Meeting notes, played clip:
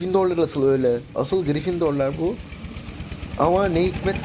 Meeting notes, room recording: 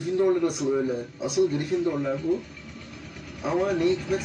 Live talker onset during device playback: none

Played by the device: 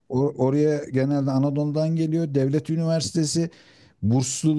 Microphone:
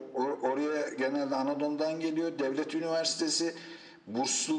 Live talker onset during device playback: none

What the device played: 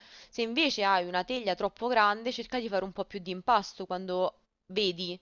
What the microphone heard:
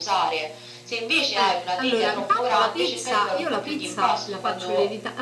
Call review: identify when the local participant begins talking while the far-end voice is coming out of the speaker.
1.3 s

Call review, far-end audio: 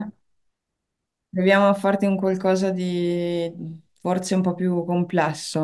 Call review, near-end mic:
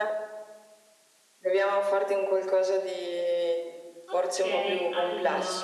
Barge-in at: 4.0 s

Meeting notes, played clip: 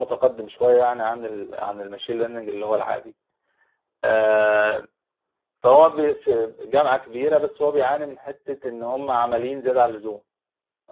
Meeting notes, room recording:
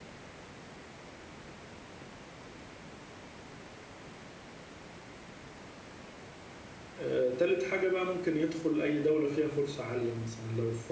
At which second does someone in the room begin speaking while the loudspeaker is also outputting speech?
7.0 s

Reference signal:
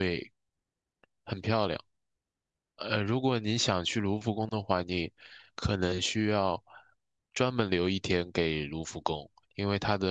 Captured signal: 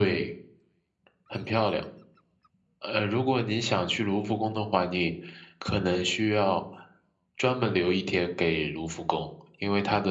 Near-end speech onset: none

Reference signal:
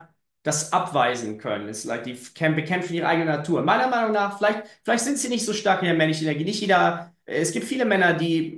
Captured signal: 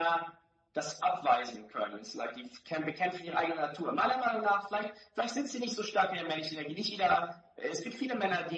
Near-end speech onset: none

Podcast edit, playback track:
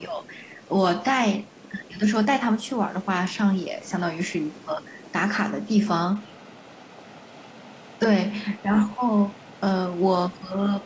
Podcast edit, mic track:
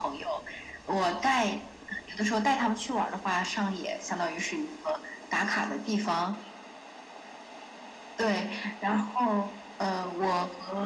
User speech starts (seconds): none

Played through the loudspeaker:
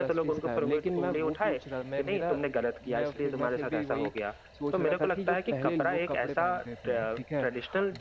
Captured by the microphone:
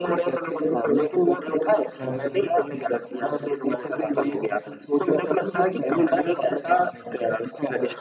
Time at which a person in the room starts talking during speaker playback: 2.0 s

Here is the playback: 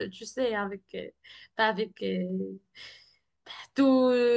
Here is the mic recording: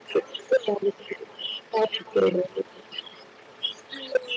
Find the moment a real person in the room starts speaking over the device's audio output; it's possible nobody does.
none

